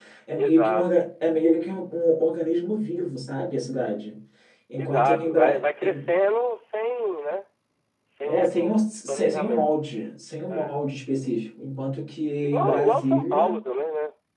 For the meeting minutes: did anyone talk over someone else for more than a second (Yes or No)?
Yes